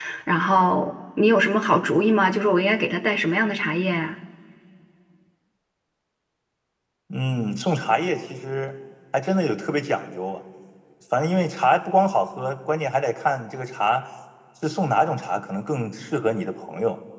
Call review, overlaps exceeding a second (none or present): none